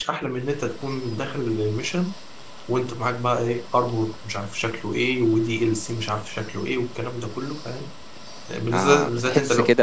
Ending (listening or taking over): taking over